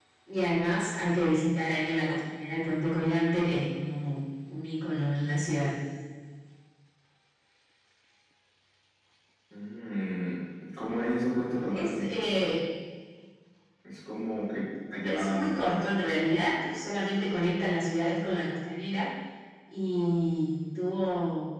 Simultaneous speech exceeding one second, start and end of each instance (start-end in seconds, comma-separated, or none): none